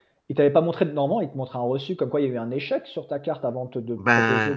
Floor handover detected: Yes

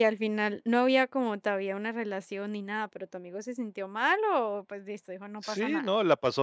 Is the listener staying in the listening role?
No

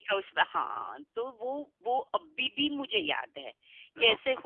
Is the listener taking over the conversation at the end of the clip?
No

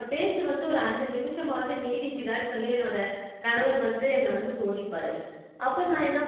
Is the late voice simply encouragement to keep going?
Yes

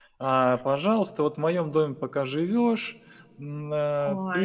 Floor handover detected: No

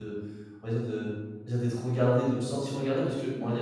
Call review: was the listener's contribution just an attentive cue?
Yes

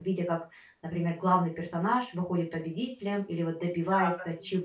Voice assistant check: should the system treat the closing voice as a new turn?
Yes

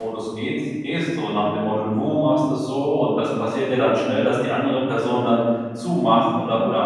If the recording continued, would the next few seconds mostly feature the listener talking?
No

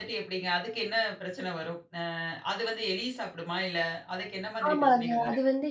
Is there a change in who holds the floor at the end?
Yes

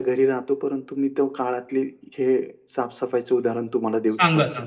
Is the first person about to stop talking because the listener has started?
Yes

